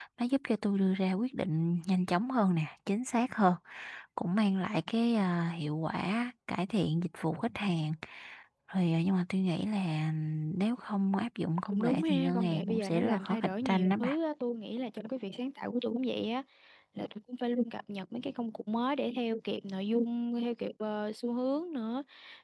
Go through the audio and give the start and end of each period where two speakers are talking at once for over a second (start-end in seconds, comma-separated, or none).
11.6-14.2